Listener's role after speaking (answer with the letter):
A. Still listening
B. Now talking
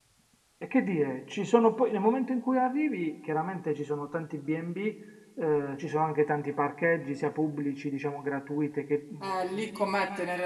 B